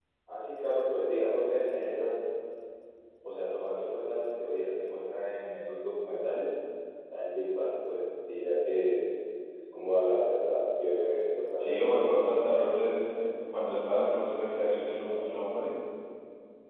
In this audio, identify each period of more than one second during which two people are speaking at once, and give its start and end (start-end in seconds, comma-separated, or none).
11.6-13.0